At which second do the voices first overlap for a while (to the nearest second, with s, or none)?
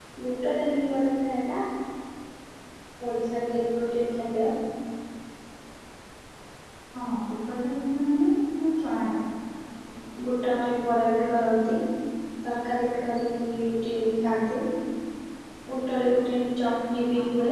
none